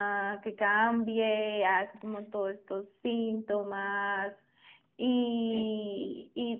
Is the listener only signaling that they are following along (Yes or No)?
Yes